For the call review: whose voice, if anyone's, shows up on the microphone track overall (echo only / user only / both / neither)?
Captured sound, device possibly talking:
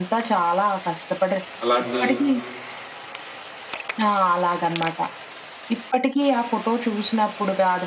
both